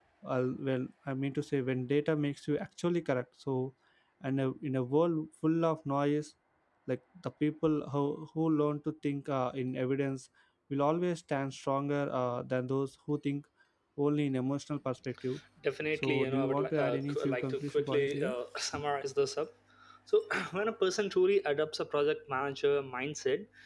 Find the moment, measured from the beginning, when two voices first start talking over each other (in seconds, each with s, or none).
16.0 s